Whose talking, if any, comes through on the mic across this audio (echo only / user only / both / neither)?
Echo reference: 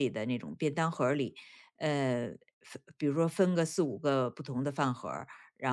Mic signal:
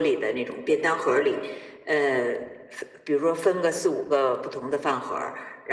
echo only